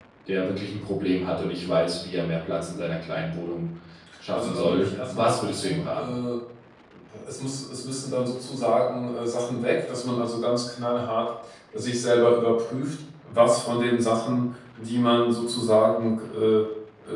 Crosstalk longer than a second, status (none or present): present